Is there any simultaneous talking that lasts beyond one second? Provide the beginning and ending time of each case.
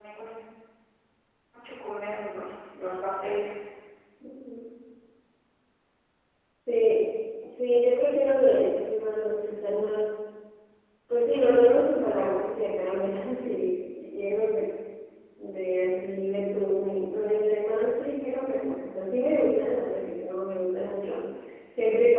none

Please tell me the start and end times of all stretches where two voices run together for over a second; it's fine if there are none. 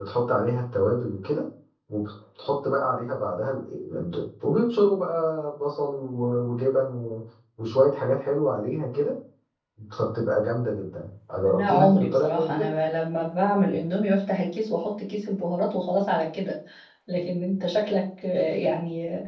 11.4-12.7

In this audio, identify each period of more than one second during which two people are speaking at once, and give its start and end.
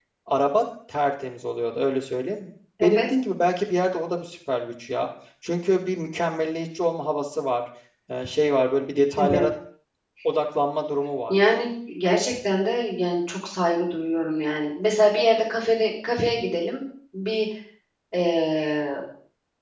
none

